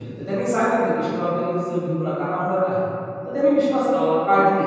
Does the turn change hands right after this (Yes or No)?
No